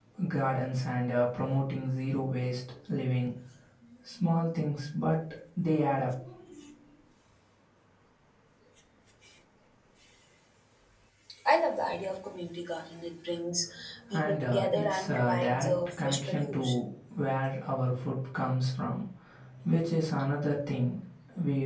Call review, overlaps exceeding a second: present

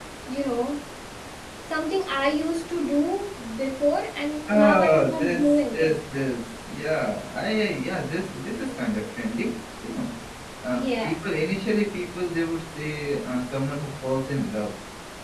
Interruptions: present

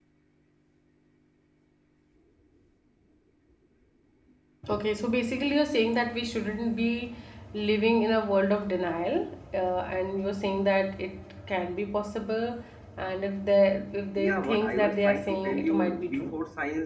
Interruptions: present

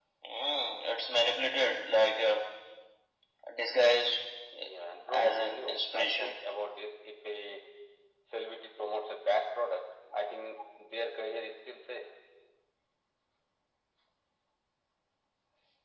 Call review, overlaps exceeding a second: present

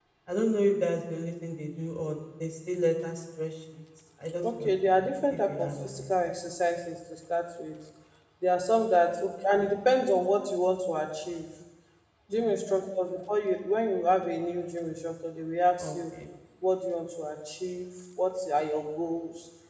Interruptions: present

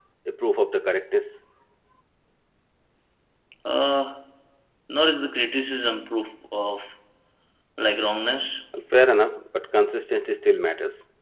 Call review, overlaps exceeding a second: none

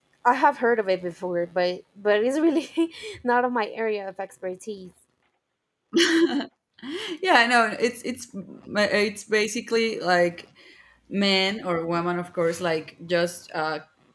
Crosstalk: none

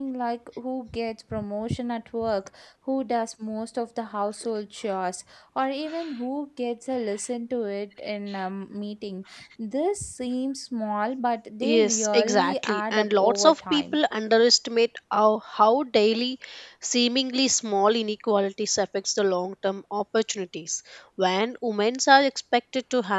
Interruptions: present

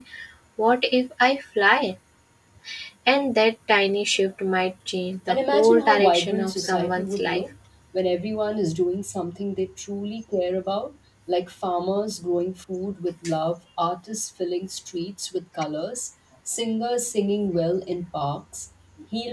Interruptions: present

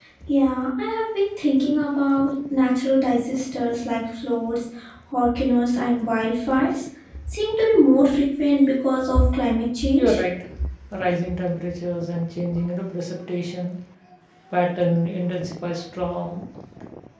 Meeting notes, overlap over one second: none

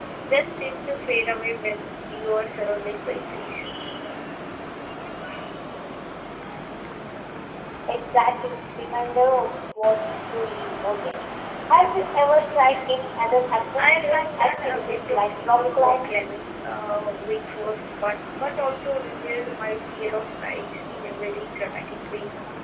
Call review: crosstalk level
present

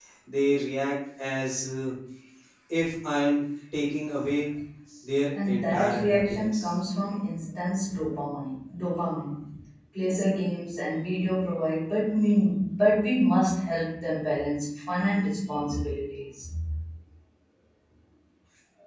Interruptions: present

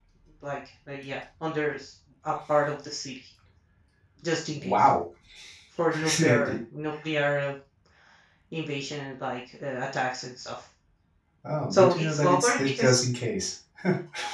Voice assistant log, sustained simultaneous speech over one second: present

